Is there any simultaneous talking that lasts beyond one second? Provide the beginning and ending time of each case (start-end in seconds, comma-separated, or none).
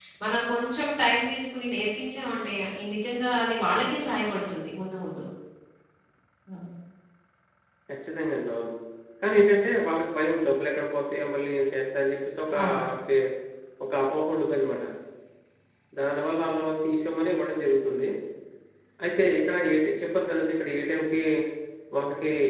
none